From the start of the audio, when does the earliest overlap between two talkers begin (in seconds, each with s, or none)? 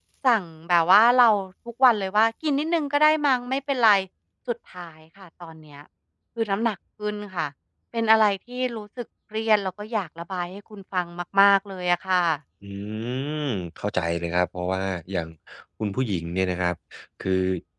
none